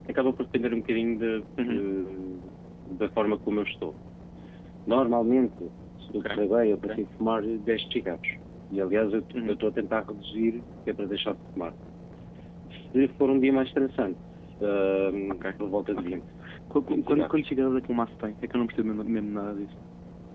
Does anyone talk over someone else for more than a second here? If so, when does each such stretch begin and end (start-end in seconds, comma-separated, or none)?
none